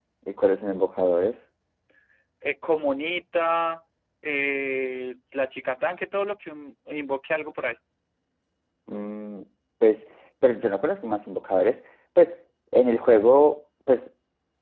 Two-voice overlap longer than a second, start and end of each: none

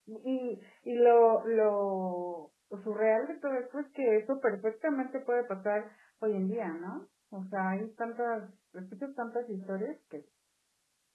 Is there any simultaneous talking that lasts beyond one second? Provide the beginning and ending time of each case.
none

